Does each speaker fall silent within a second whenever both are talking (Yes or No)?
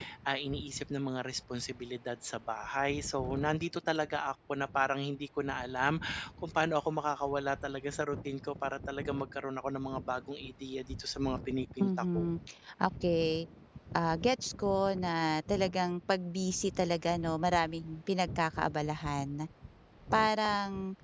Yes